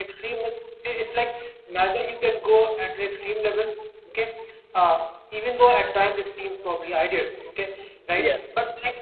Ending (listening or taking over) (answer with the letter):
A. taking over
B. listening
B